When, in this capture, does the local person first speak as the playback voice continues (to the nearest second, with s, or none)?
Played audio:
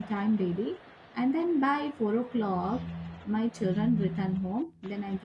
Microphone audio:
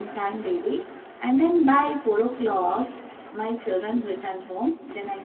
none